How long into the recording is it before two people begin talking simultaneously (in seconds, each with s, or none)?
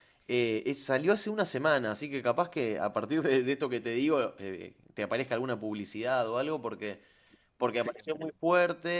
none